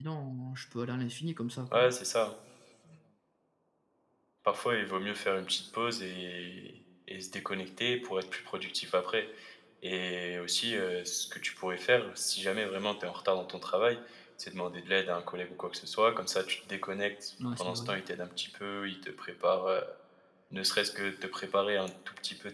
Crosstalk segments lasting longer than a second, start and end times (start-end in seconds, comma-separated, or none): none